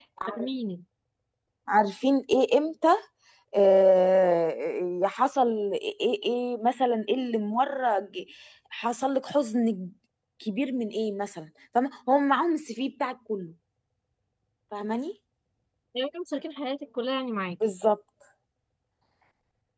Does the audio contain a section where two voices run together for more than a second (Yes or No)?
No